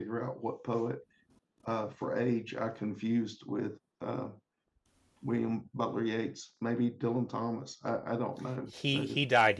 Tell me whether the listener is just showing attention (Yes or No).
No